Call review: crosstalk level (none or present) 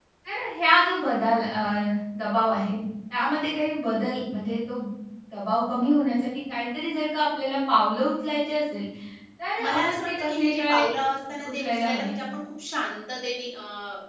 present